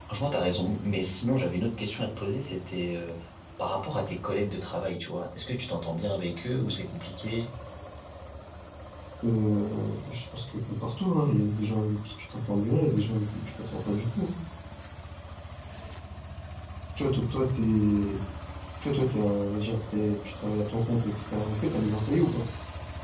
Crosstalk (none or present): none